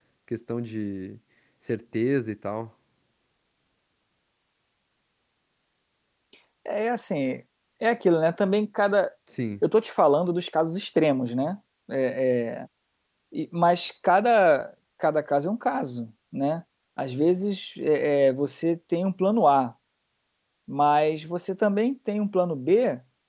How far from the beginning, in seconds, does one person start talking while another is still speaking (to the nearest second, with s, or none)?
none